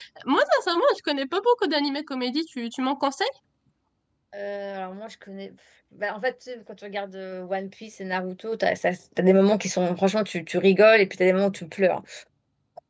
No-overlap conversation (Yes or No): Yes